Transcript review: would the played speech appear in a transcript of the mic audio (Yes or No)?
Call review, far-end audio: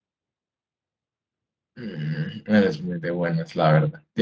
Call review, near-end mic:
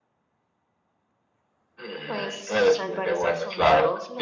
Yes